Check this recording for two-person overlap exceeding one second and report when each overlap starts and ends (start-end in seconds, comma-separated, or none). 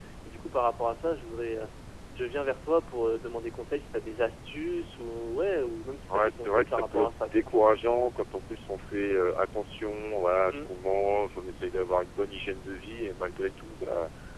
6.1-7.4